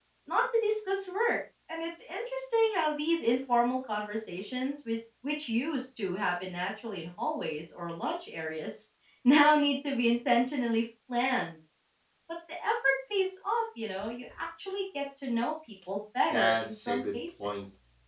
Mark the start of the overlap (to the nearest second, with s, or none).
16 s